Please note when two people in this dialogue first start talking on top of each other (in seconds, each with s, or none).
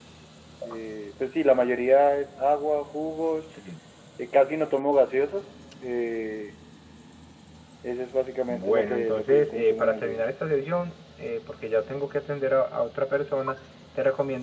8.5 s